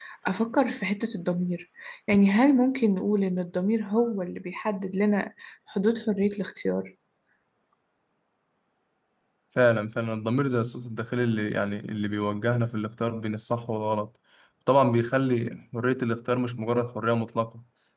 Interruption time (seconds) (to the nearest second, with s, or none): none